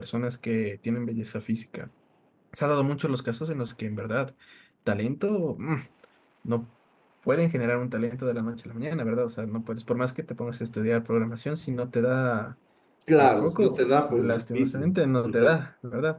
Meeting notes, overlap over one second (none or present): present